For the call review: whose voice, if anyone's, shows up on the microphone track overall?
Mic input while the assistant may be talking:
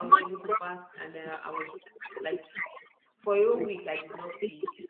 both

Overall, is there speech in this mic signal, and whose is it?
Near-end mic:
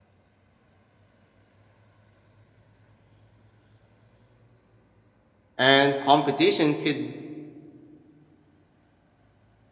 user only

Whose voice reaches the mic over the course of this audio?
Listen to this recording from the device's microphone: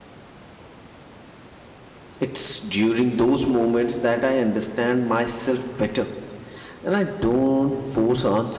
user only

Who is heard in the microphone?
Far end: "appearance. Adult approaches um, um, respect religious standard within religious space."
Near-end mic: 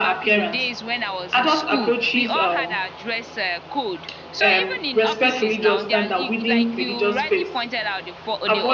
both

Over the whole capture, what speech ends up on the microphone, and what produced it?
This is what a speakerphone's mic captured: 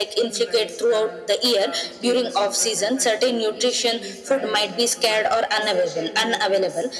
both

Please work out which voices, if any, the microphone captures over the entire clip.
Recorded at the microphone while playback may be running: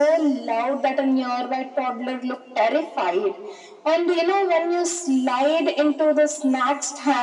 echo only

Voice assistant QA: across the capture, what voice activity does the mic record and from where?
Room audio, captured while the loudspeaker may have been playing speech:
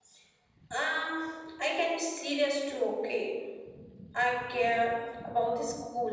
echo only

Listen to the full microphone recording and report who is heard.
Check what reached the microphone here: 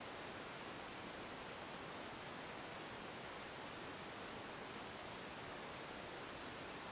neither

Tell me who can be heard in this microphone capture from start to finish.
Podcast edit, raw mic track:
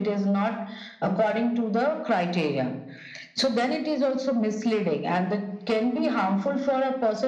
echo only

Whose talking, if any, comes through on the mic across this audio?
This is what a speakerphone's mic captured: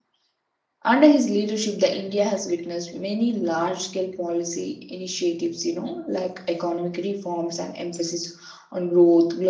user only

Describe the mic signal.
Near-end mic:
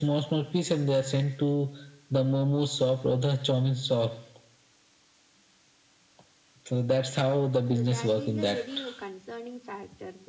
both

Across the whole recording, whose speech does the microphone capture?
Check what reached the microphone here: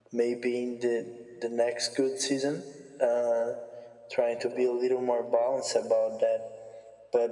echo only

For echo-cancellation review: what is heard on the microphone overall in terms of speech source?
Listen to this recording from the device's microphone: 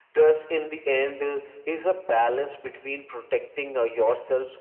echo only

